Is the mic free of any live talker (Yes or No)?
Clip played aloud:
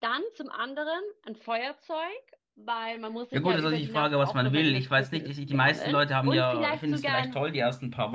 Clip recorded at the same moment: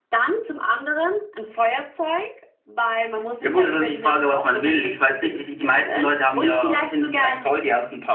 Yes